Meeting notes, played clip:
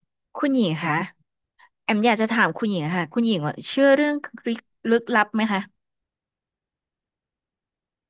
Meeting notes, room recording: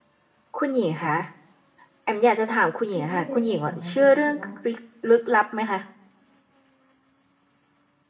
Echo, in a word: present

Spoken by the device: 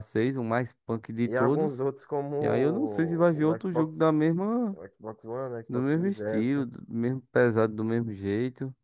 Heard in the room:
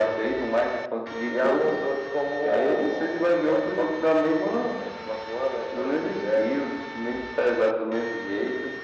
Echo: present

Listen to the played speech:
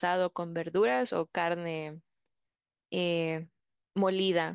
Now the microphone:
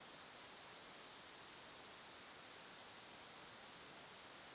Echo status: none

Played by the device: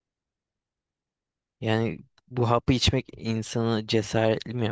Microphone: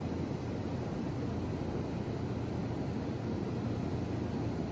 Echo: none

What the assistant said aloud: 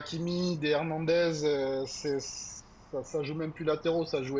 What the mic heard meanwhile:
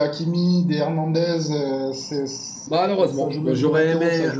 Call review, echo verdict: present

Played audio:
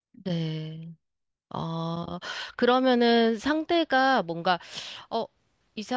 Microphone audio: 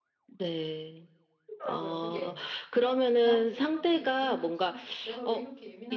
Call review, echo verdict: present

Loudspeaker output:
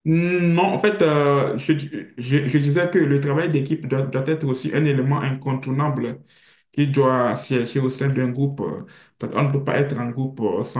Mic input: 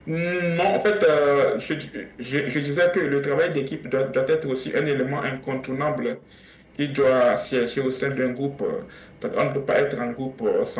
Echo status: present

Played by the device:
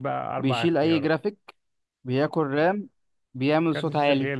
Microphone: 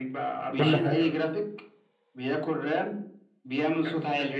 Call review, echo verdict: present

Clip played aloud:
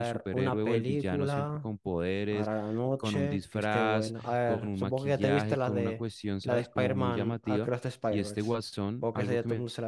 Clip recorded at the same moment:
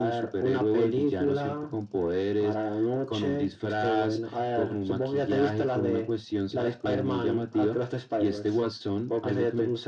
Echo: present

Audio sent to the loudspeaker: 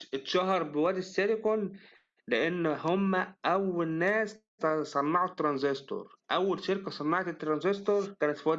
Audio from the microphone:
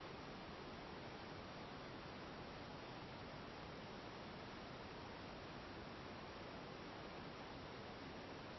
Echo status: none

